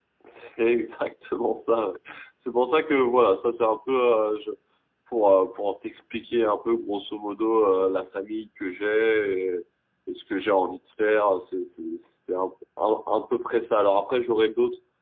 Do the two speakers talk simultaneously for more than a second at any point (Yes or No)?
No